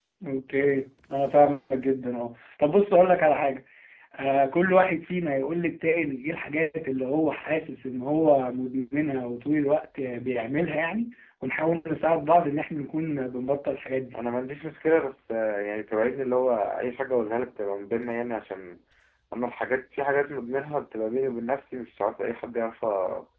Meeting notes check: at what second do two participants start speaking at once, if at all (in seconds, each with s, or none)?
none